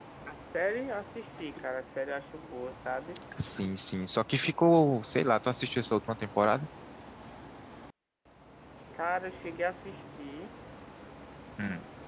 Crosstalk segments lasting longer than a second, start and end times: none

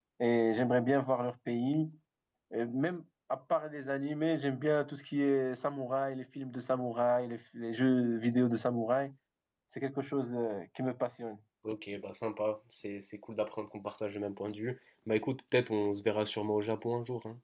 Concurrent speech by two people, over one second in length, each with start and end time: none

